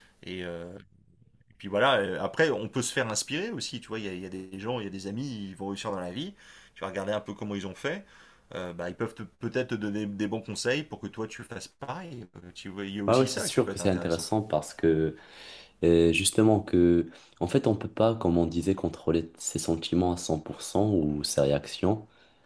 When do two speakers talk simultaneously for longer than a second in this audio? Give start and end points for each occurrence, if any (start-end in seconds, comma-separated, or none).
13.1-14.3